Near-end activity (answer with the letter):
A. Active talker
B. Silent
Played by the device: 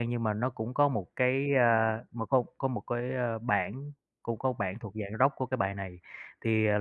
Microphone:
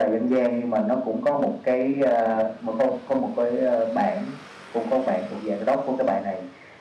B